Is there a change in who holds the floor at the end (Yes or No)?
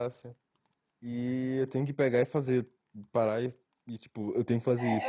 Yes